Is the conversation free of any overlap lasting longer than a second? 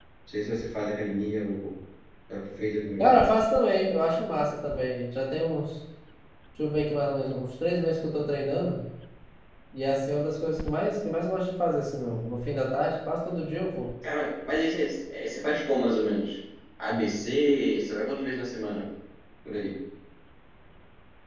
Yes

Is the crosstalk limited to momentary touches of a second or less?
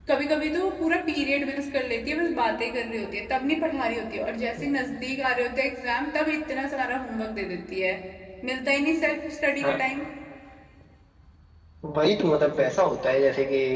Yes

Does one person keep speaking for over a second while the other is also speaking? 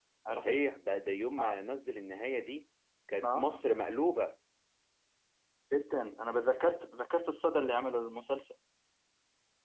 No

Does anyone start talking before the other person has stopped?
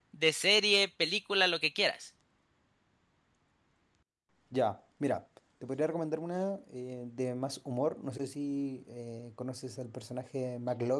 No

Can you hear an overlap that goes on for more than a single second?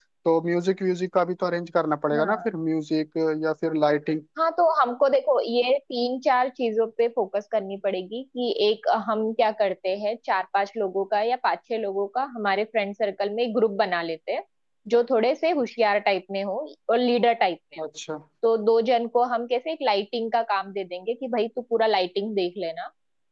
No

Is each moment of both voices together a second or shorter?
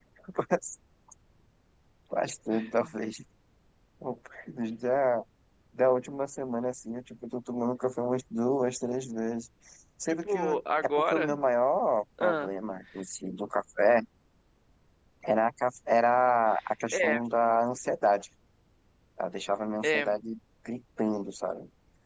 No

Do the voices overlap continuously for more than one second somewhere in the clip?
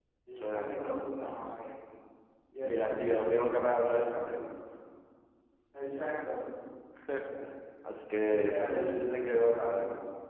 Yes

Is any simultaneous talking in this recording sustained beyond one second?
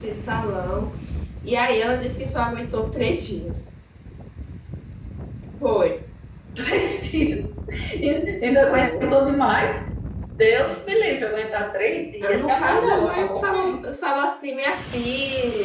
Yes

